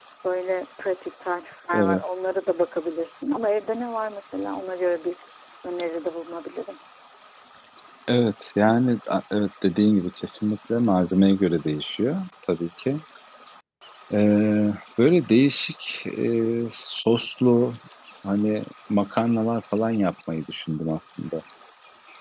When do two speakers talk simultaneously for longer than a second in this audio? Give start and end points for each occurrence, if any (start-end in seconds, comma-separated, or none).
none